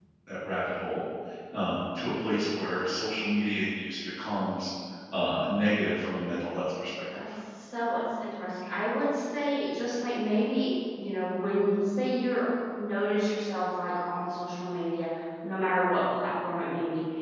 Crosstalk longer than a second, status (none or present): none